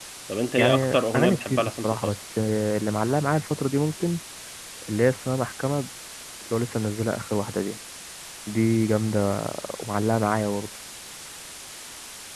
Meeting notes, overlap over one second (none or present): present